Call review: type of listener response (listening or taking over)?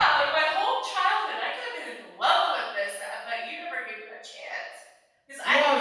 taking over